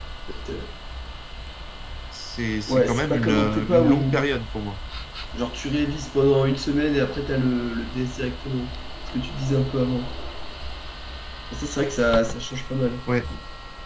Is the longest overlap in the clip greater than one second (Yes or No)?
Yes